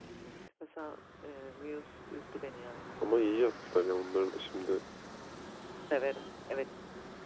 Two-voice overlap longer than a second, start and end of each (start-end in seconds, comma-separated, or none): none